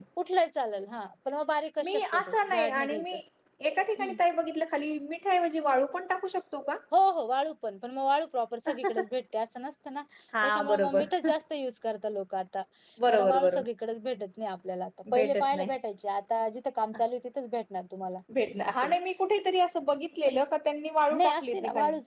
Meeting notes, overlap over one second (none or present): present